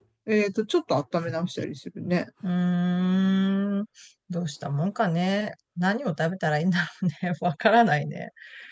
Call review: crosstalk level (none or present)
none